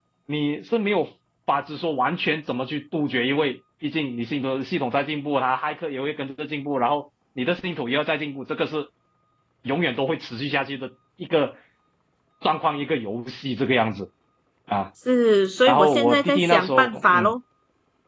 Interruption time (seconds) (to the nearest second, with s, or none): 16 s